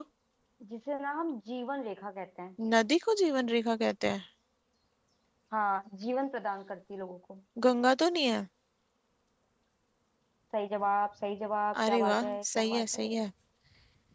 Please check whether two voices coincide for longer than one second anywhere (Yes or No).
Yes